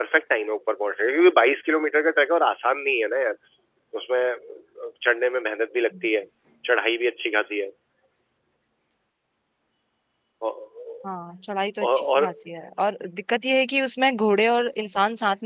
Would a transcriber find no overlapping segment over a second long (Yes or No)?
Yes